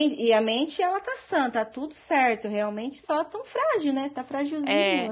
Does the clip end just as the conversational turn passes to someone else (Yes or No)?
Yes